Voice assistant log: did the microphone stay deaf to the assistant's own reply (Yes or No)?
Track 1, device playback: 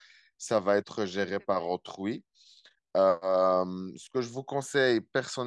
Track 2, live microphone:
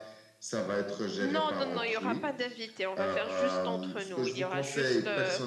No